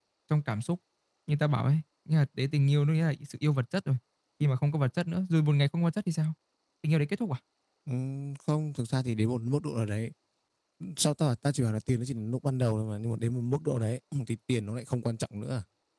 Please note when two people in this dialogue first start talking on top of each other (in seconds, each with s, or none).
none